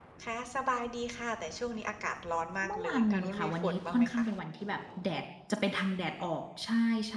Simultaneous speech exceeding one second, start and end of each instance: 2.7-4.2

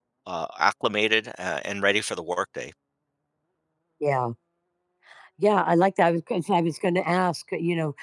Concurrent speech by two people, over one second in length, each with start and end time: none

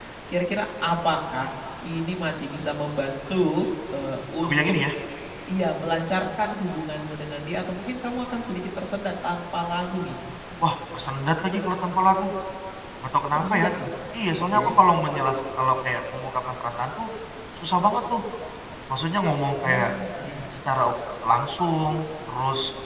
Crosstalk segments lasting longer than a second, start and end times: none

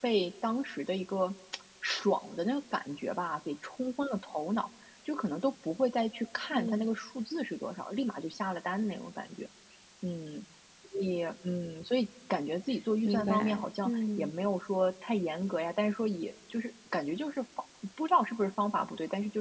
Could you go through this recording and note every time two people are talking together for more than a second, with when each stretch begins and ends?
13.1-14.3

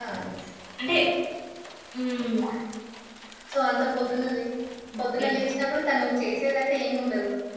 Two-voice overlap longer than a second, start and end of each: none

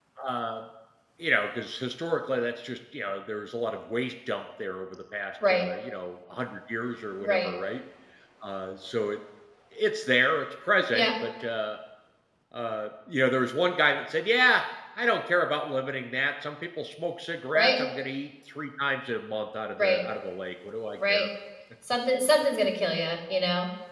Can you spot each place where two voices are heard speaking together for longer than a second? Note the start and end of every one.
none

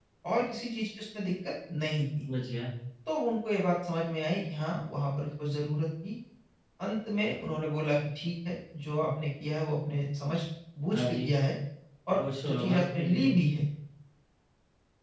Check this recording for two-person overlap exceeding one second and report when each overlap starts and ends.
12.2-13.4

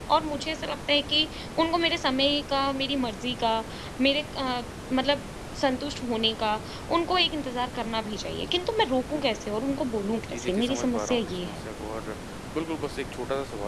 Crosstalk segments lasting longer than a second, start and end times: 10.3-11.7

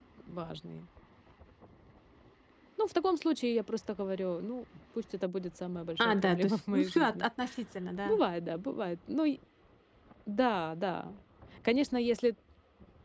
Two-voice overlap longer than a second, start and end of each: 6.0-7.3

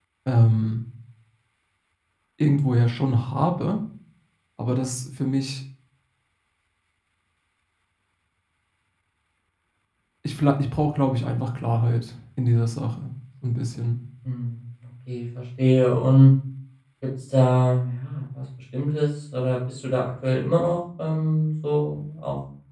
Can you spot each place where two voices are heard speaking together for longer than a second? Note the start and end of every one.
none

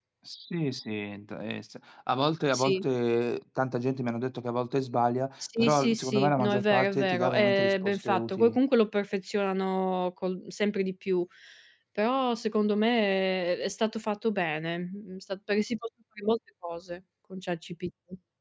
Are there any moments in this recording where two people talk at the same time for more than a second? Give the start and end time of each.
5.6-8.6

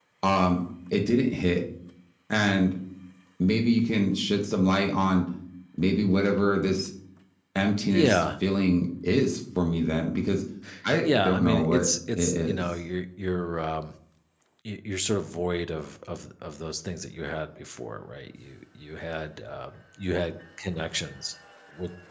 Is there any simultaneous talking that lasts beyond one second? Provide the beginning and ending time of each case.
11.0-12.6

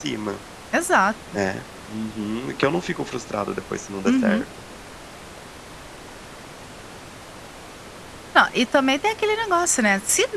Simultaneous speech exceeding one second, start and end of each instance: none

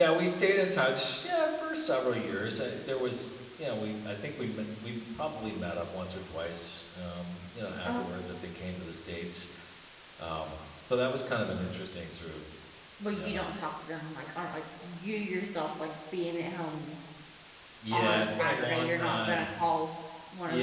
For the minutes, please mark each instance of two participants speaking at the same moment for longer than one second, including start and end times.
17.9-19.5

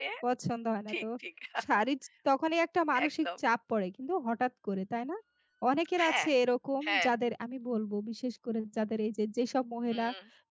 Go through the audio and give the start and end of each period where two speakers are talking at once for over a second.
none

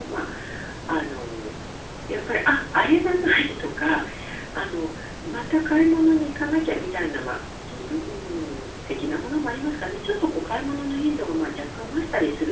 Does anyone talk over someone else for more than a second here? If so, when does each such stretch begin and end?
none

